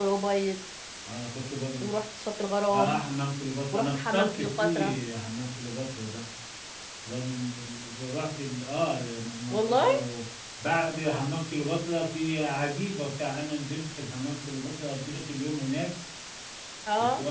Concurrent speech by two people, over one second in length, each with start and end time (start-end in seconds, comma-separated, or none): 3.7-5.0